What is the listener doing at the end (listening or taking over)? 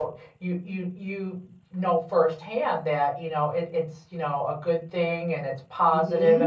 taking over